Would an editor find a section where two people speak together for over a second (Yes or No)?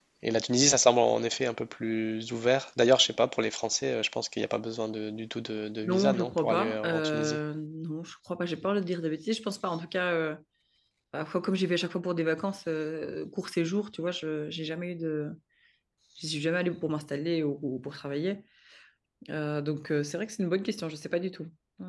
Yes